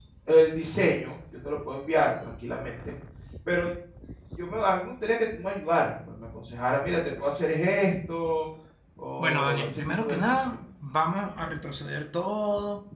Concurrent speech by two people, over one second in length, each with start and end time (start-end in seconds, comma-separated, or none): 9.2-10.5